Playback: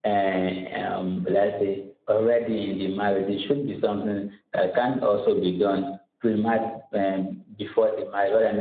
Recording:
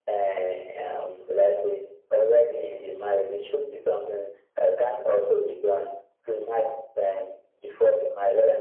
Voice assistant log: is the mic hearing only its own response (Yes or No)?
Yes